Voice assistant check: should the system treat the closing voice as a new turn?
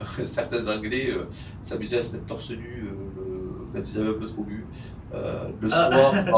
No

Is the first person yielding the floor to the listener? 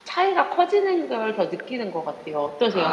Yes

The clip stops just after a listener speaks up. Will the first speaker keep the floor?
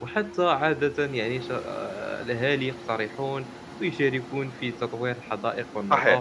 Yes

